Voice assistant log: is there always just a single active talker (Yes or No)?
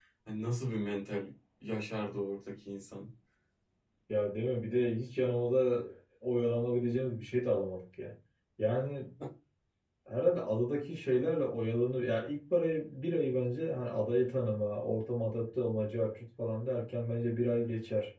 Yes